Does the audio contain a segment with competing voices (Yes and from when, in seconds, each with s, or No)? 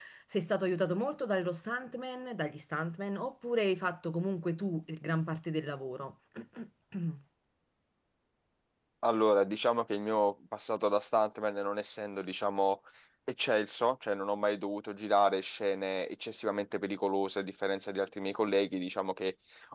No